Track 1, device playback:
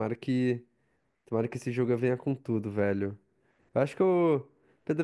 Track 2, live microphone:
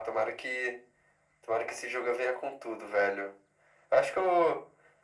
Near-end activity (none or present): none